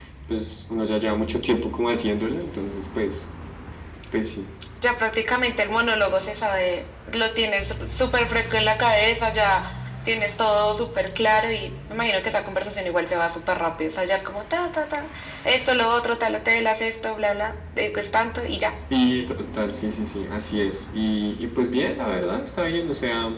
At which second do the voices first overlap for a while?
none

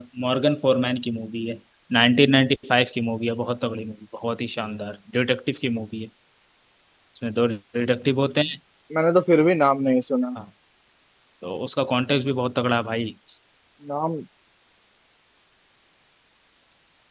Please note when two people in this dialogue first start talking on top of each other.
none

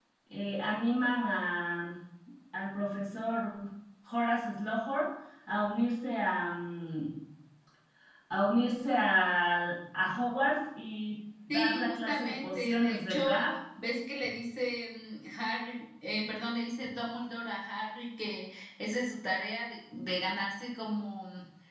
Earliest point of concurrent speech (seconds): 11 s

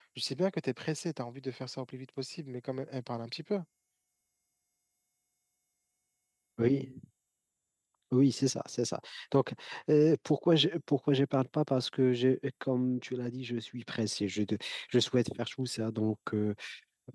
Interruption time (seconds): none

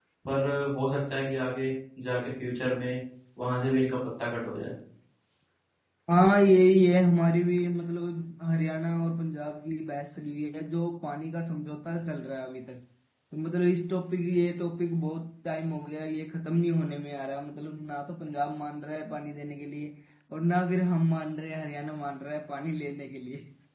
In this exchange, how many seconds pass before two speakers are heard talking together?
none

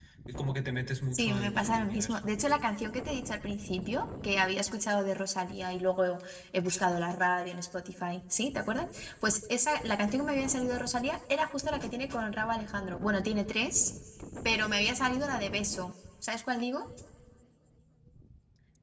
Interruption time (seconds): 1 s

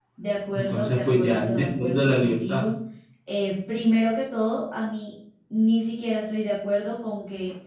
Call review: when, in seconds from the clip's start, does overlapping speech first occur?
1 s

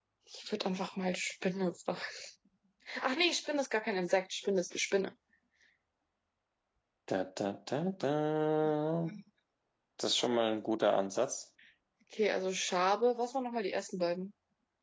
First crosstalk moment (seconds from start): none

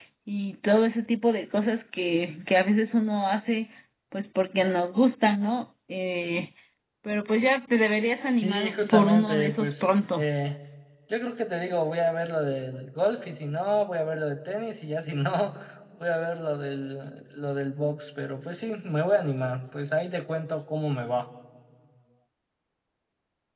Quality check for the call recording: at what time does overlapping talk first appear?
8 s

